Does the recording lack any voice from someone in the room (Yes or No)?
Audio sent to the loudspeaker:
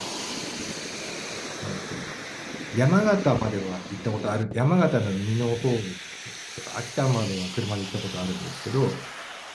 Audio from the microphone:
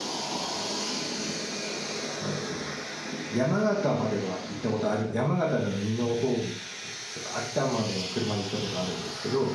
Yes